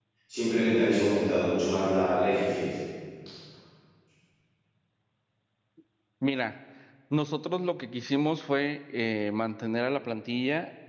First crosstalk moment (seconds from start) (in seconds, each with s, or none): none